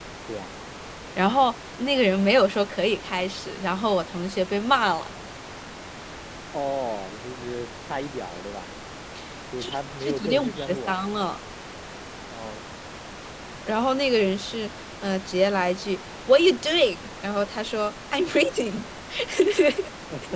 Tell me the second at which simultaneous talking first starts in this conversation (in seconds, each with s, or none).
9.6 s